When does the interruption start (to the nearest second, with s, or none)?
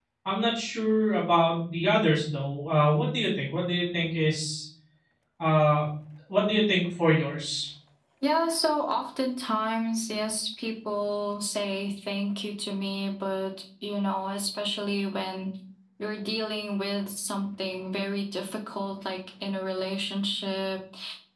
none